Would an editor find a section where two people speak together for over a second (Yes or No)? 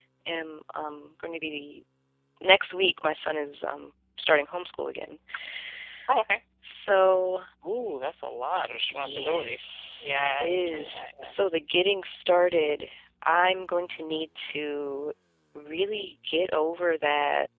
Yes